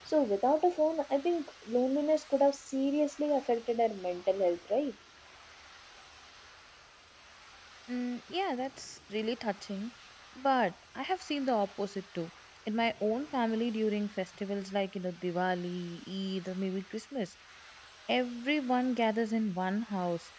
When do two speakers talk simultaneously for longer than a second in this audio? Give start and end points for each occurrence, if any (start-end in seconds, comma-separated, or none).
none